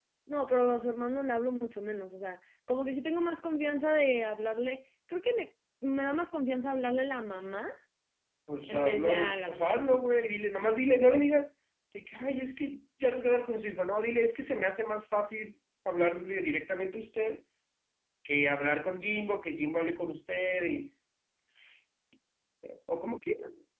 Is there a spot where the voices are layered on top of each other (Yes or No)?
Yes